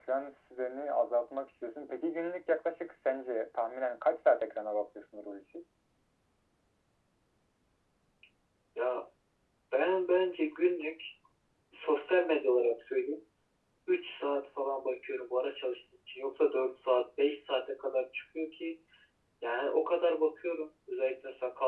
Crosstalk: none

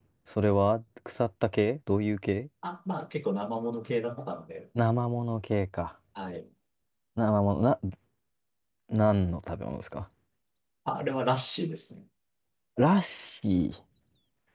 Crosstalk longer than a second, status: none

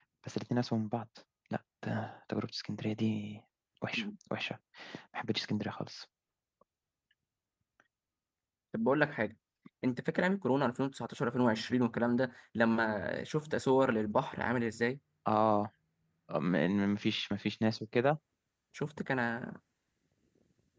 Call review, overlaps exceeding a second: none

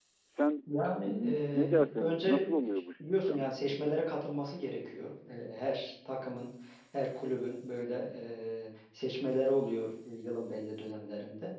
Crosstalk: present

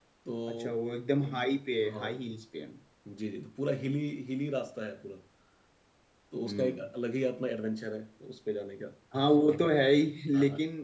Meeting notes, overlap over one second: none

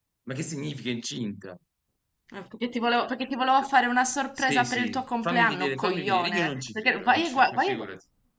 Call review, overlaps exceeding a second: present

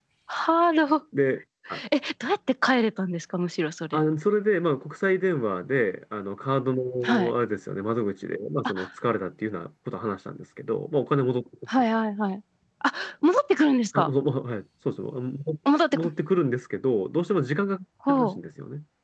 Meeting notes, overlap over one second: none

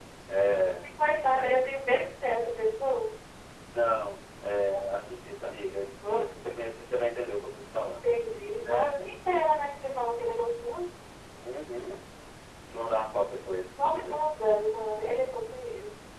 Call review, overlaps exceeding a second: none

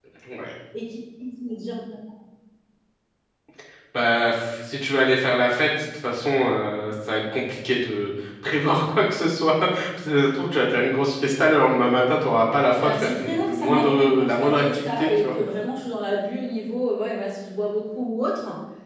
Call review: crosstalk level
present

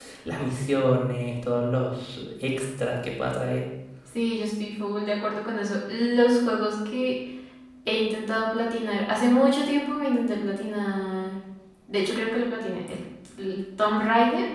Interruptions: none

